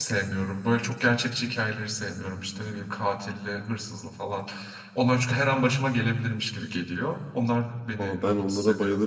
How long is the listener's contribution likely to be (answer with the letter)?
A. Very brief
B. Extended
B